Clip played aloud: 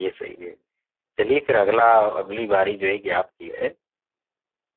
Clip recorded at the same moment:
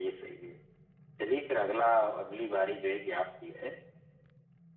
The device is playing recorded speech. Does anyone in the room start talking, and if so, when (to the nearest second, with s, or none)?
none